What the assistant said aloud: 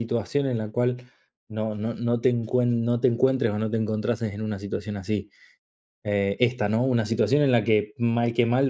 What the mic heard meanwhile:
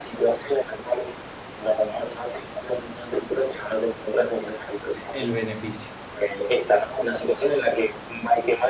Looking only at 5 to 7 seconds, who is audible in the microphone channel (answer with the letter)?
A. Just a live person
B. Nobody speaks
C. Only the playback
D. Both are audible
D